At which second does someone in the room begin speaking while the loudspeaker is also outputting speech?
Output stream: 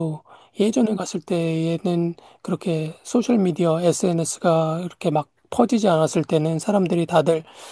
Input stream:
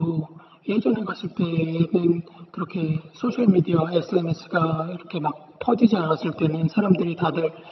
none

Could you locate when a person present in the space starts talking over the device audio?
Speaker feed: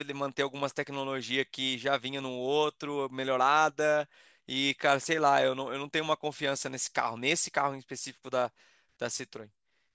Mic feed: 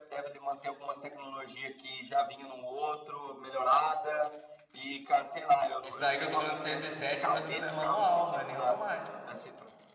6 s

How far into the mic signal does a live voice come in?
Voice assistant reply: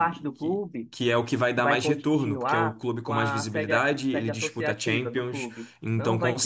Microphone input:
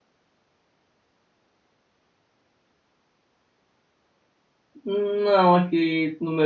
5 s

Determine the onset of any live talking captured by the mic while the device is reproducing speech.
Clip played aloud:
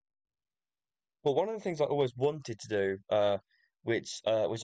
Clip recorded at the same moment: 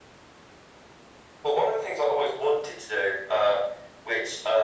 none

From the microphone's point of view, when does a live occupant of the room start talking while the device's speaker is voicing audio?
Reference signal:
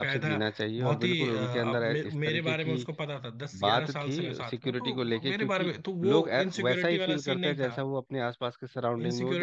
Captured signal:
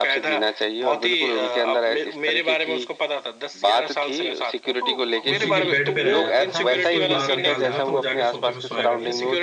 5 s

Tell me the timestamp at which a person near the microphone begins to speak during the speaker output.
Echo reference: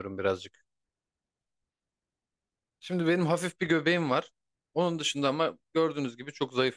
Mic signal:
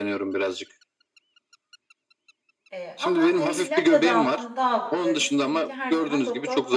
3 s

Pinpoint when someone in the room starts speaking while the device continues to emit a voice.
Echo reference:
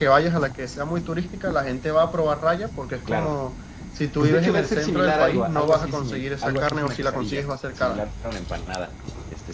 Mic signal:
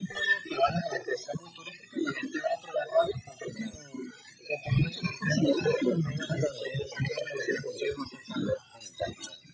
none

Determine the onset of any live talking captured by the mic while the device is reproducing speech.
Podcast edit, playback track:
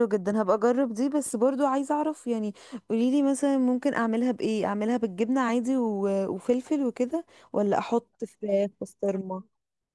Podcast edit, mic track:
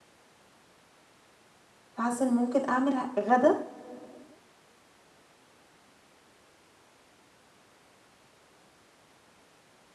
2 s

